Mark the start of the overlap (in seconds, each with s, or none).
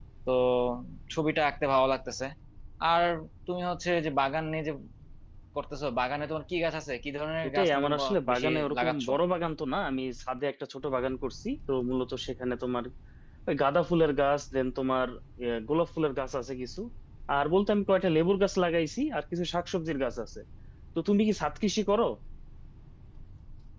7.4 s